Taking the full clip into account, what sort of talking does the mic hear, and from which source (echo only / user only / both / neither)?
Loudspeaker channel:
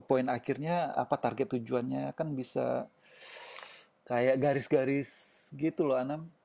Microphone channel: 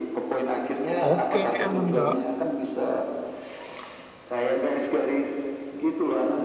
both